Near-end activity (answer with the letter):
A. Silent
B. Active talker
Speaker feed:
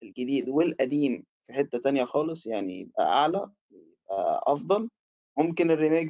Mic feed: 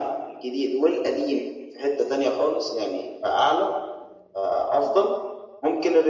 A